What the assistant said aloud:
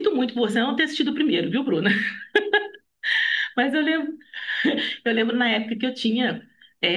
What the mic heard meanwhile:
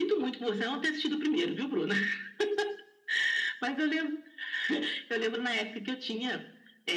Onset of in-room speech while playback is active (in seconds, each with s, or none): none